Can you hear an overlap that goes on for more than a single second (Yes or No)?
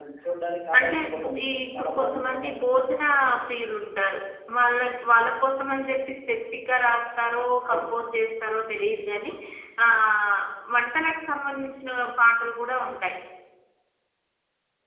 Yes